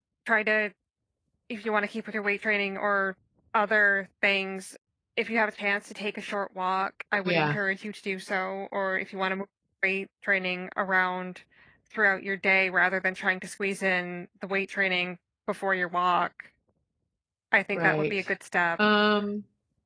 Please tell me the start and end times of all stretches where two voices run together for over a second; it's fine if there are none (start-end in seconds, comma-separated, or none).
none